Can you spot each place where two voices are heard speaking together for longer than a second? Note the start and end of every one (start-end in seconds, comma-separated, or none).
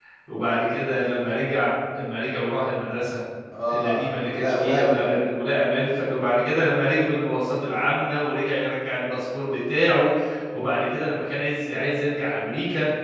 3.7-5.1